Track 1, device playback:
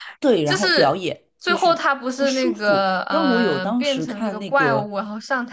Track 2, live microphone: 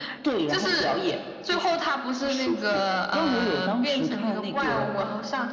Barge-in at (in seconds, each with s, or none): none